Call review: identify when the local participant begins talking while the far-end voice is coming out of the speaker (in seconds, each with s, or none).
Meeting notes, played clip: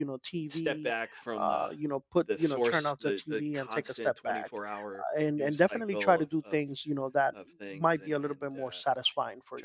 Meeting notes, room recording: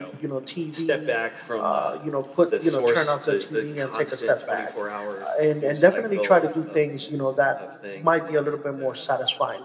none